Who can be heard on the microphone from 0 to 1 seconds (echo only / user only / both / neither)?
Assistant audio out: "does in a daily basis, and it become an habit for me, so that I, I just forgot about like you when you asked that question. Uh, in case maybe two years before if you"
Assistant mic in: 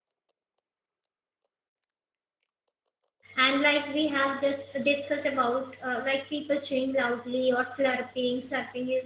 neither